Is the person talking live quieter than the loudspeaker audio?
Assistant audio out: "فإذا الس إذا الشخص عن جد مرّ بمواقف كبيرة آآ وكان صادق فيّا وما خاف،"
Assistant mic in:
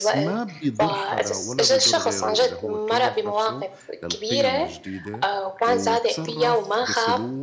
Yes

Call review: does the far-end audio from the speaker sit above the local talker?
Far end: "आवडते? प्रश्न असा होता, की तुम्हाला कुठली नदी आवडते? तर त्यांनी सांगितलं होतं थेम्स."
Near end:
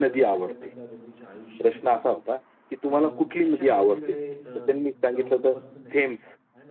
Yes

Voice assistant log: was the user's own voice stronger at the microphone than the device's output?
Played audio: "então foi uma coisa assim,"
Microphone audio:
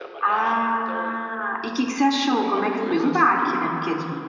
Yes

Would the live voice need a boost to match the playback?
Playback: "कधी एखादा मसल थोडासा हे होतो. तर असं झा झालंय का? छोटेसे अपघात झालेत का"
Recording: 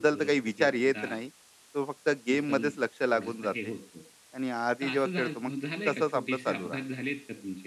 No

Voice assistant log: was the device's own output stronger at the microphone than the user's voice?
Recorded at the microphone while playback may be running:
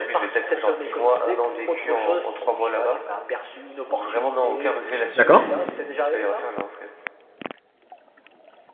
No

